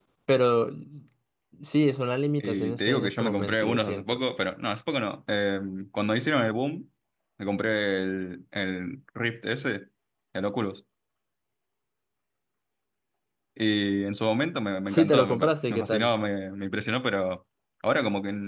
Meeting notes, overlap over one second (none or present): present